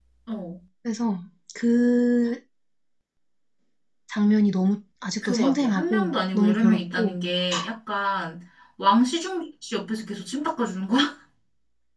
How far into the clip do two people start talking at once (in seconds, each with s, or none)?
5.2 s